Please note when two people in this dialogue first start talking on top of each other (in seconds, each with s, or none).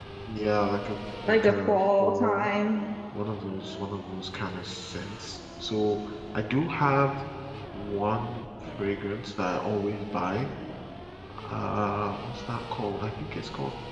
1.3 s